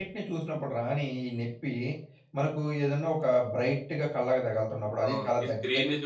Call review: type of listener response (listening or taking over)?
taking over